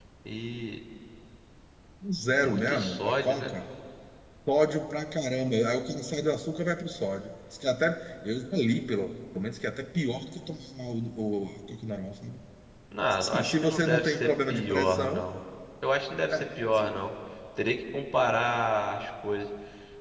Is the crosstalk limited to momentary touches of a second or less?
No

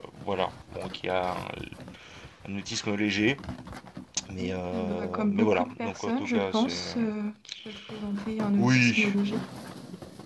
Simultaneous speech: Yes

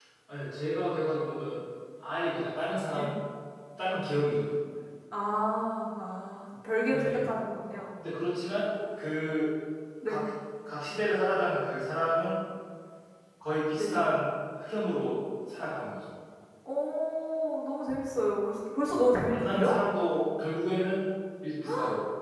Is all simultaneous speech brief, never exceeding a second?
Yes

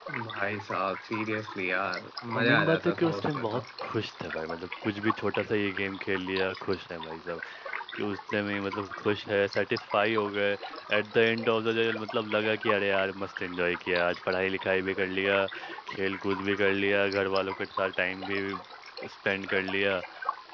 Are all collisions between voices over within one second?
No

